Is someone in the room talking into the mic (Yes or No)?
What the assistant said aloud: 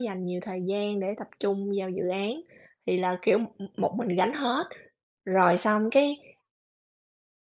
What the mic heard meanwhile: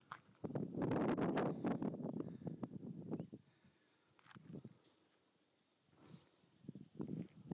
No